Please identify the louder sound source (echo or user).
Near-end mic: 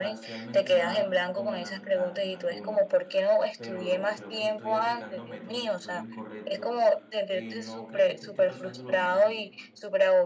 echo